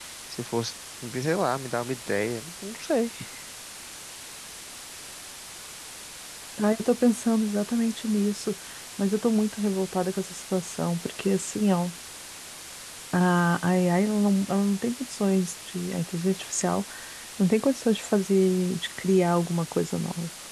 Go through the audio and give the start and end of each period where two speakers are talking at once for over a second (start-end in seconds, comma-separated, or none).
none